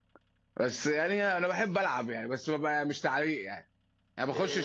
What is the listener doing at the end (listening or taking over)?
taking over